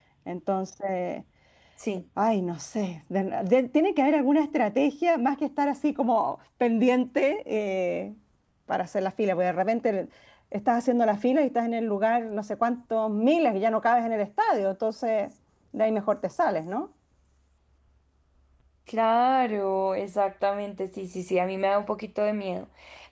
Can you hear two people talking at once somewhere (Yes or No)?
No